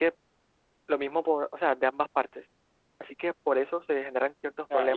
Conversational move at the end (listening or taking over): taking over